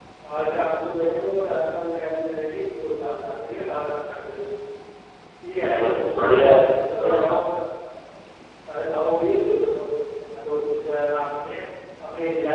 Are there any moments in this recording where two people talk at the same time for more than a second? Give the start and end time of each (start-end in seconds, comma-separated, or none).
5.7-7.3